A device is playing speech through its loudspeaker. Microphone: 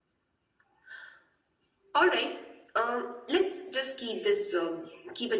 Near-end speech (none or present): none